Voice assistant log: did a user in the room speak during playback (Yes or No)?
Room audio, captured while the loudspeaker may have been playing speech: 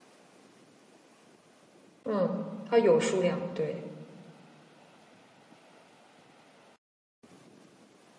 Yes